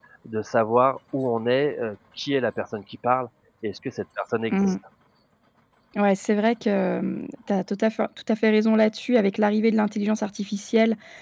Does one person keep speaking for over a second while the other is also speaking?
No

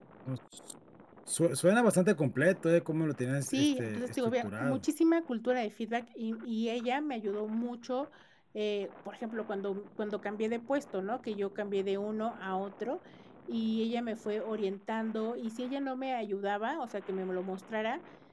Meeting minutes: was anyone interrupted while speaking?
Yes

